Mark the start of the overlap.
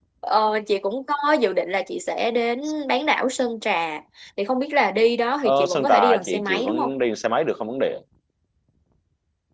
5.4 s

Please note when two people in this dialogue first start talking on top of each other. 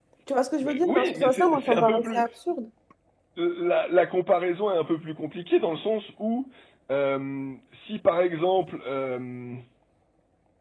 0.6 s

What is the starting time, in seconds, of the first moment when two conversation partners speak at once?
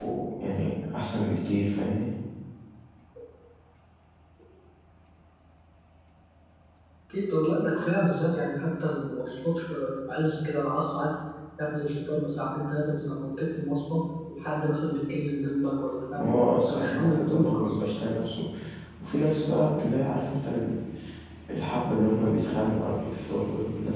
16.1 s

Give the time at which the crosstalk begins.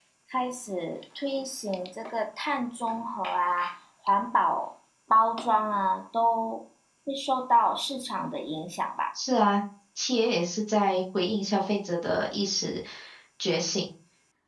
none

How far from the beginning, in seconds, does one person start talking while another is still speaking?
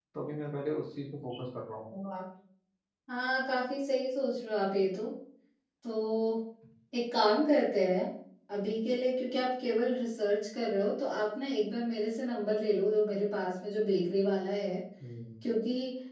none

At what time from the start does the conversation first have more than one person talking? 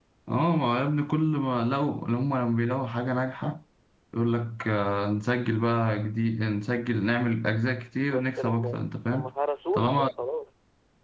8.1 s

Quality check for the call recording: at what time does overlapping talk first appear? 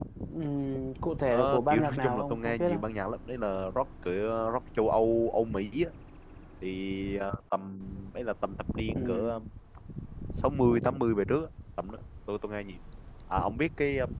1.3 s

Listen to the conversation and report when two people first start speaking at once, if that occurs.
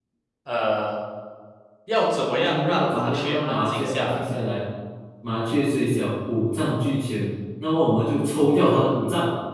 2.4 s

